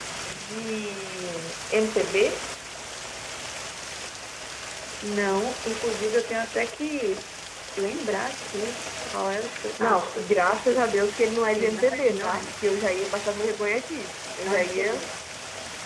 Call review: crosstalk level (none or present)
present